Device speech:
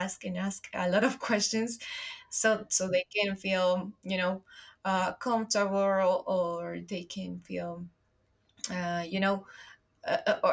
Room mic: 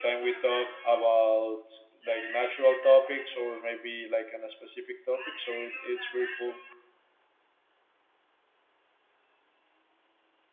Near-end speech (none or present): present